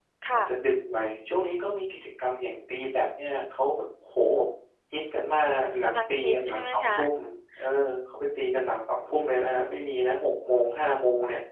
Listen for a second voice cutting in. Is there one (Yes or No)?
Yes